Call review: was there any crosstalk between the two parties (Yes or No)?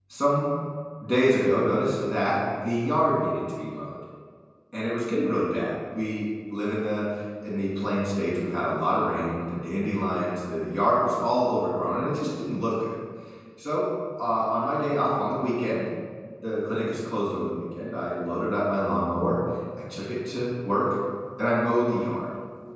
No